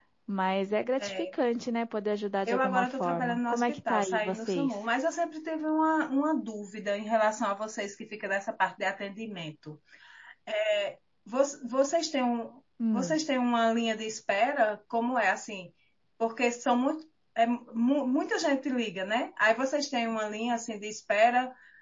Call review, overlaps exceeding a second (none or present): present